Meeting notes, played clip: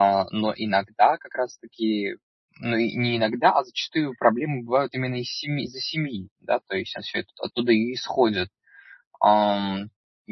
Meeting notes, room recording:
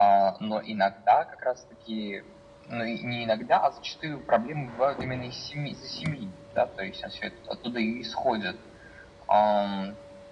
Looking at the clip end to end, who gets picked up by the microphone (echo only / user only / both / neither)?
echo only